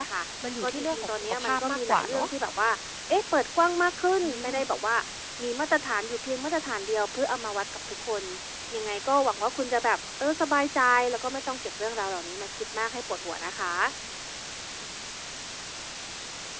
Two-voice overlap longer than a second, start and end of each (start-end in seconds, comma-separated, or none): 0.6-2.3